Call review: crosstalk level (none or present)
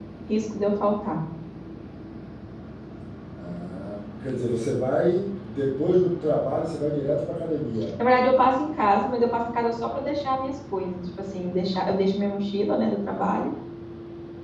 none